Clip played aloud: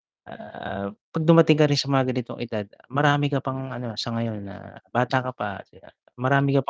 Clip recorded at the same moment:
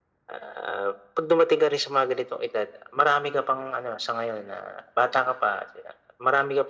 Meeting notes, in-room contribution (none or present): none